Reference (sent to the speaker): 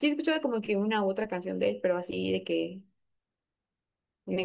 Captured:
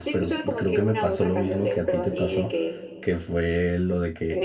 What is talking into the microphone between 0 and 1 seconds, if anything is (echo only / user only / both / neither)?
both